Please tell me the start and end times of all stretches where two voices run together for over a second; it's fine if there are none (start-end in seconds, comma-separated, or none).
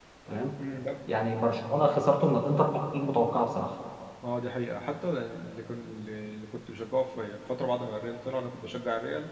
none